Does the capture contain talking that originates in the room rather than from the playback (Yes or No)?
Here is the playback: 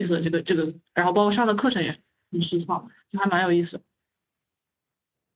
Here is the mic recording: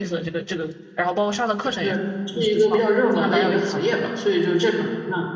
Yes